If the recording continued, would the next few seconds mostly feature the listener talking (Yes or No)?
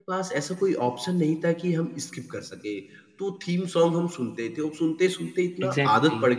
No